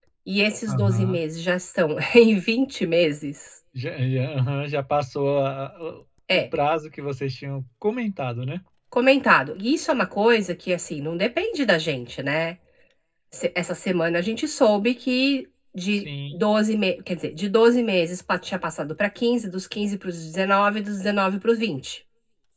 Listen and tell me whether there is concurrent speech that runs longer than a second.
No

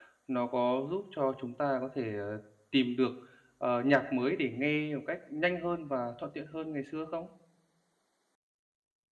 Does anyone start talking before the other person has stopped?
No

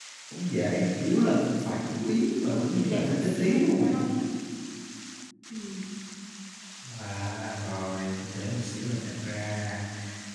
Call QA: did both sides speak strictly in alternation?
No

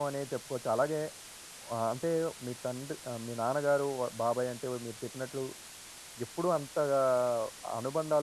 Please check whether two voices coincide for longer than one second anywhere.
No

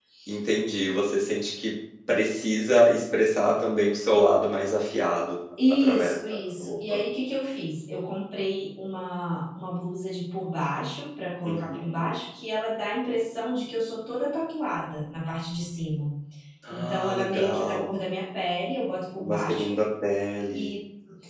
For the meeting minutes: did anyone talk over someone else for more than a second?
Yes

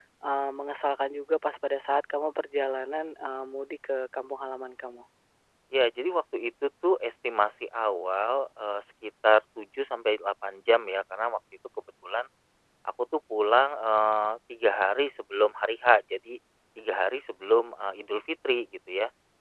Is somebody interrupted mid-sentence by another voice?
No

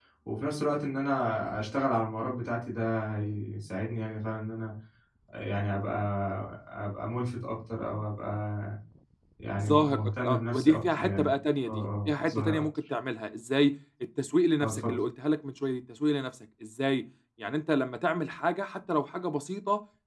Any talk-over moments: Yes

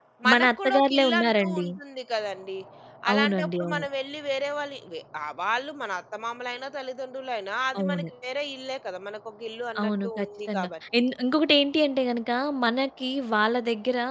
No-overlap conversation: No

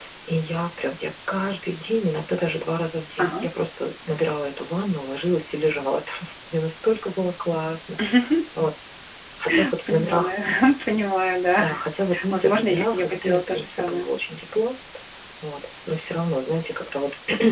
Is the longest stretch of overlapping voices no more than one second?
No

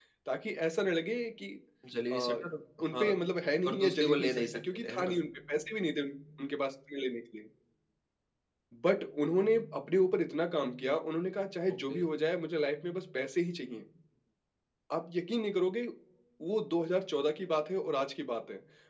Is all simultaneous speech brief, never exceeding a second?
No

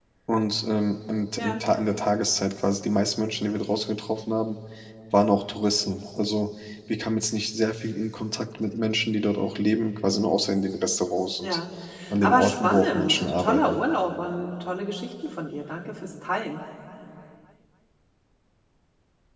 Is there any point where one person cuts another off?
Yes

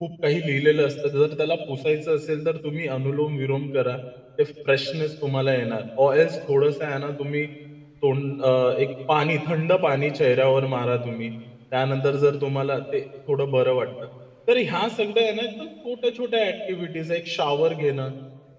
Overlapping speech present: No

